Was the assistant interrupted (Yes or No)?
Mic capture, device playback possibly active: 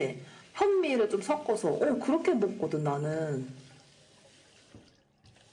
No